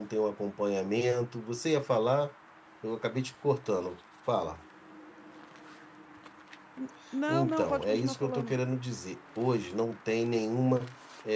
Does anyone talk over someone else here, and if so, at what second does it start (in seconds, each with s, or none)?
7.3 s